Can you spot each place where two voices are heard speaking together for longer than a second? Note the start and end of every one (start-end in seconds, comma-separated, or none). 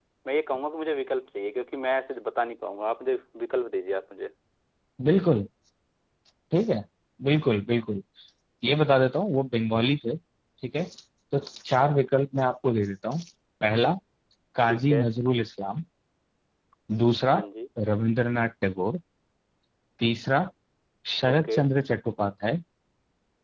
none